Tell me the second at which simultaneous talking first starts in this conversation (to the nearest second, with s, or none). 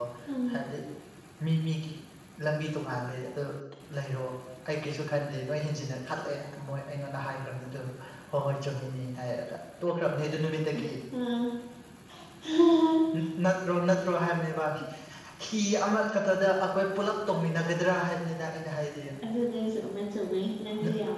none